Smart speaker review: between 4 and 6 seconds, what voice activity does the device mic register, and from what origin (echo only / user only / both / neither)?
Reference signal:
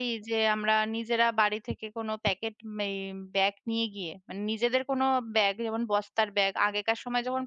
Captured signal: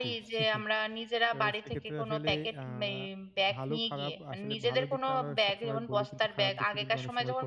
both